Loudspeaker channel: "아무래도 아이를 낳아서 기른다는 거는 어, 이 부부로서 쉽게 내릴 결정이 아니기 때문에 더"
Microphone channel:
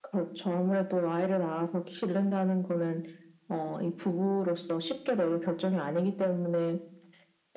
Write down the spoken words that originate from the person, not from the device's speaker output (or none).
none